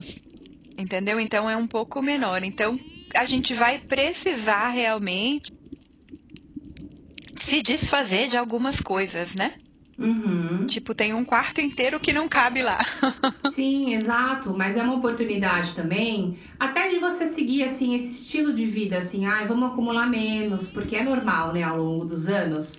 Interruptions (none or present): none